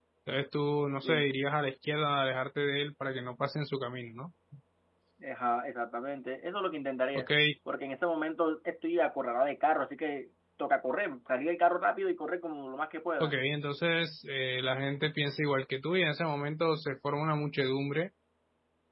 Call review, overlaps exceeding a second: none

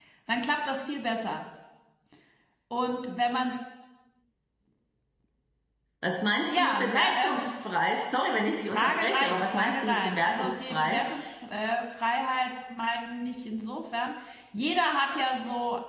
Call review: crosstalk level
present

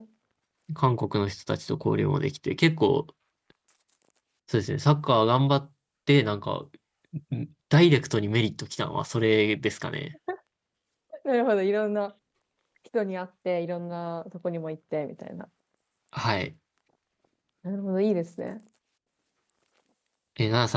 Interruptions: none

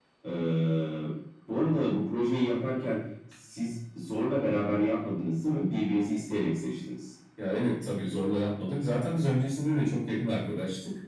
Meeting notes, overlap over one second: none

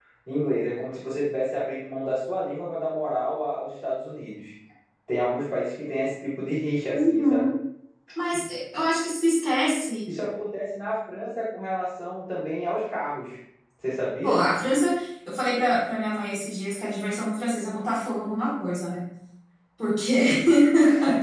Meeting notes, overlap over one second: none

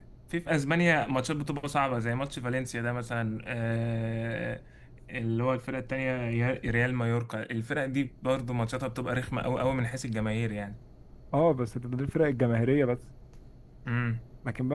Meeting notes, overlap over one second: none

